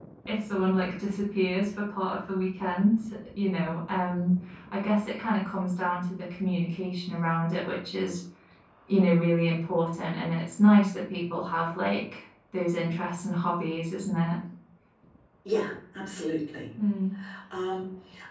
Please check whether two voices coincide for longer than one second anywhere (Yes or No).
No